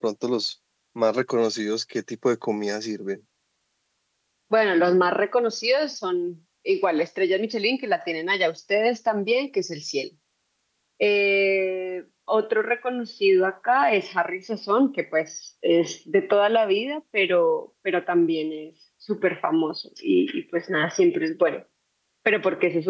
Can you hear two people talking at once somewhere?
No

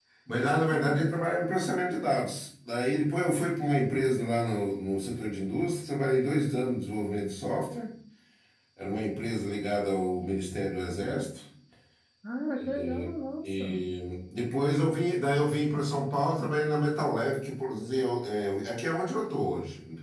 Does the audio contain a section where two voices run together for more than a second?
No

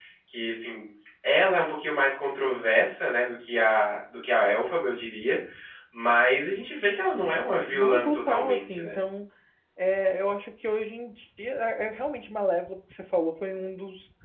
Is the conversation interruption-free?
No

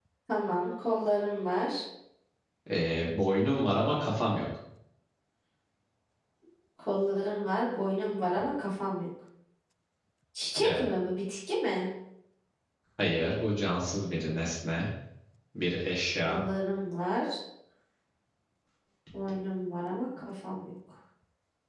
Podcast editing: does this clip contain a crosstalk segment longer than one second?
No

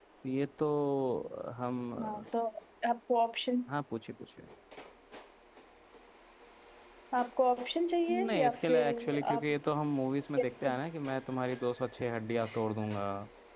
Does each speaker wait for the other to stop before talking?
No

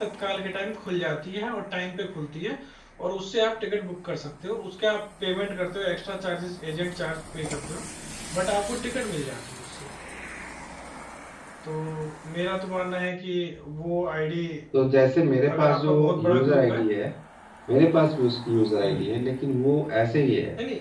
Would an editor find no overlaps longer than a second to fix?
No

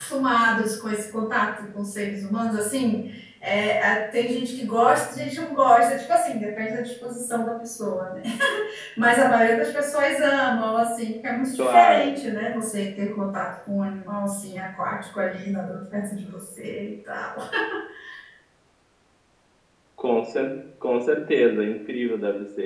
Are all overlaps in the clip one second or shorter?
Yes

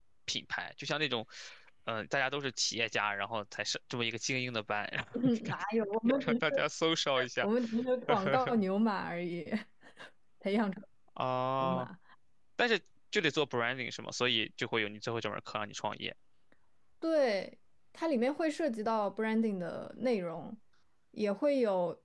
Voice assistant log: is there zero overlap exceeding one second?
Yes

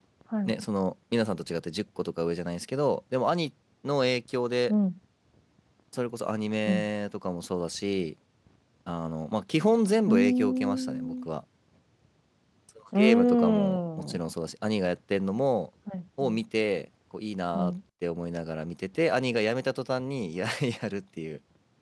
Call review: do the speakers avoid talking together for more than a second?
No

